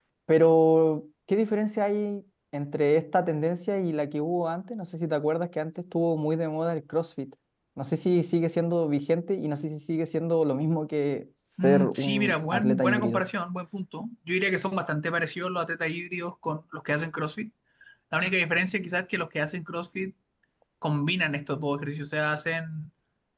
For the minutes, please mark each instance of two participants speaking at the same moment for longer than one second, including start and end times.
11.6-13.2

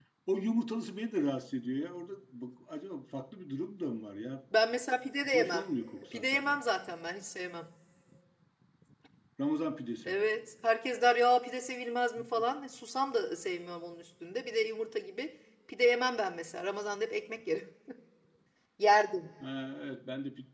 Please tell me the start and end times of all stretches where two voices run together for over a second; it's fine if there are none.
none

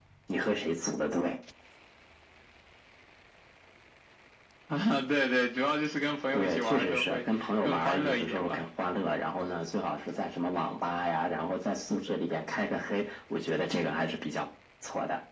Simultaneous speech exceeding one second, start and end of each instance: 6.3-8.6

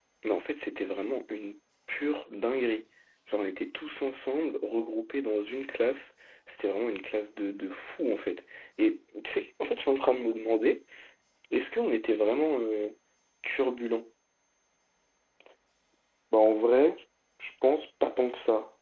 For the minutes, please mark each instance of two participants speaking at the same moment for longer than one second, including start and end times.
none

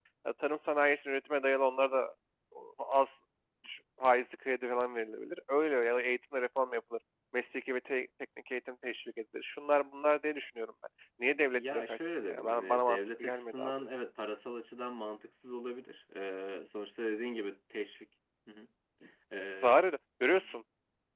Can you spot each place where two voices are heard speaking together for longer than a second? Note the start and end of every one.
11.5-13.9

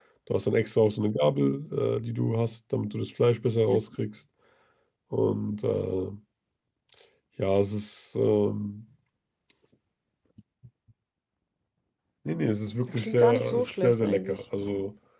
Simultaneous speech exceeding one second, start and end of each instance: 12.9-14.4

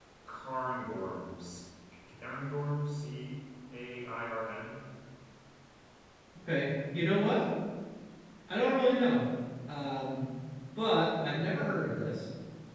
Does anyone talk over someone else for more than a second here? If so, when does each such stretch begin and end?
none

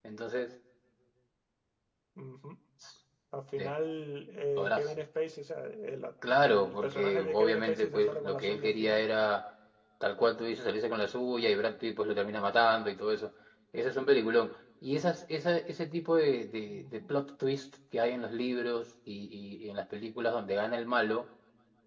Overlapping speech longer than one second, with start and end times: 6.4-9.0

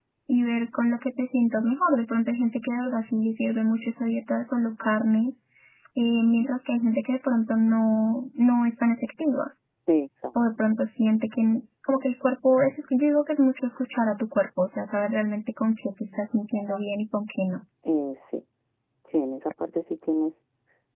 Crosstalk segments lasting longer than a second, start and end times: none

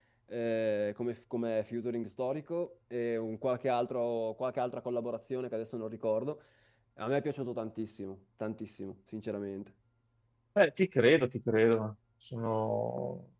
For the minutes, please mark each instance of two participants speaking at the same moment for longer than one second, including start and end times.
none

